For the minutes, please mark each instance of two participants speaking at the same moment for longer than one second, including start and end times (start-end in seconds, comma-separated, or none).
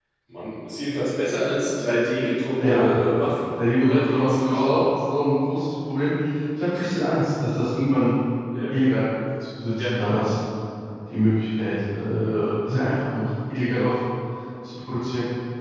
3.5-4.8